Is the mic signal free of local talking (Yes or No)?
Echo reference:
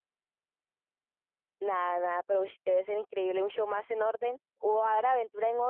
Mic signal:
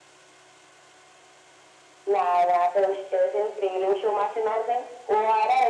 Yes